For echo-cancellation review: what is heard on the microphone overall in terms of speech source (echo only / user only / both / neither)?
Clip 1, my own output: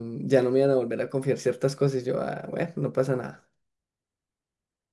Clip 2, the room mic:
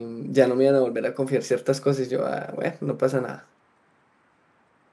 echo only